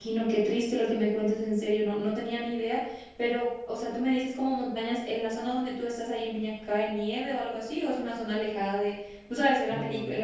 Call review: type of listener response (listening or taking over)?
listening